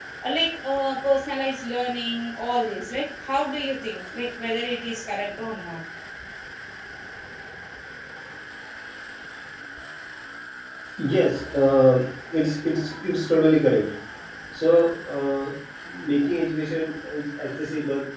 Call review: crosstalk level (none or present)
none